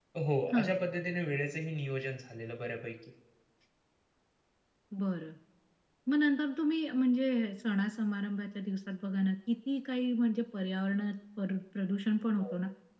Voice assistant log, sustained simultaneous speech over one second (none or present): none